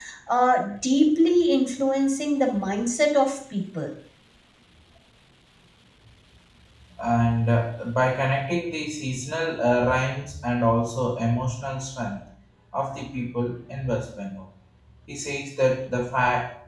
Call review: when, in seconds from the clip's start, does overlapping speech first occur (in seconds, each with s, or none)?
none